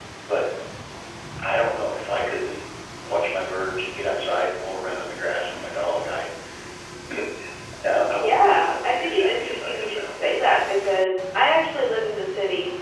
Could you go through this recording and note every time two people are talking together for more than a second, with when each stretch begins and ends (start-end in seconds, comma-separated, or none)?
8.1-10.1